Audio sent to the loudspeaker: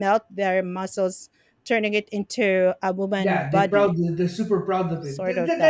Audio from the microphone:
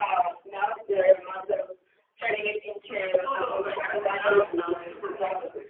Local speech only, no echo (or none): so long as you don't act it out and lie